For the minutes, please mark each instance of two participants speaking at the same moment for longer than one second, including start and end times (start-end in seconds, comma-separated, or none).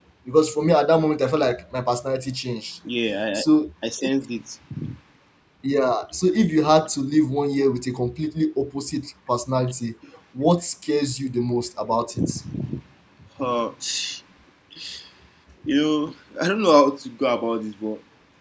none